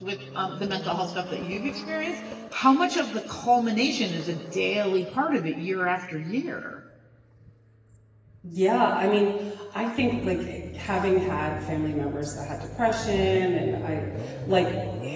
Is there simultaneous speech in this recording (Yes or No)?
No